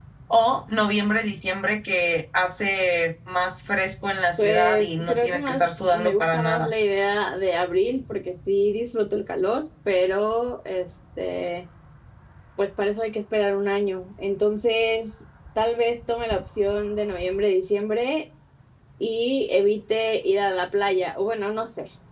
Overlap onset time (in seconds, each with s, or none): 4.4 s